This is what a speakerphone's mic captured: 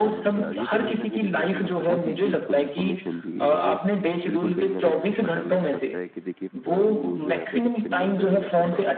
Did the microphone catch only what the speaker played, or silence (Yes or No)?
No